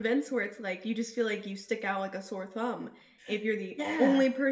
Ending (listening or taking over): listening